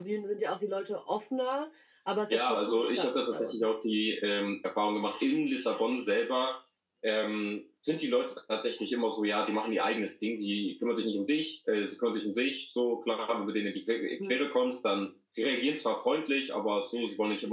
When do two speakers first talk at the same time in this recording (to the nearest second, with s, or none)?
2 s